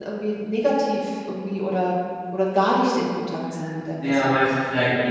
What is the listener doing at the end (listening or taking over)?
taking over